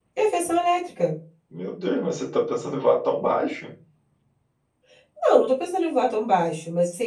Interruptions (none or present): none